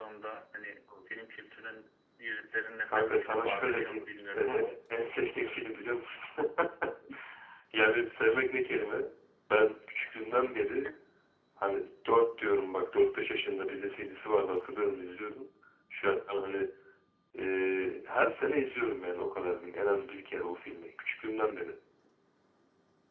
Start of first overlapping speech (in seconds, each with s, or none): 2.9 s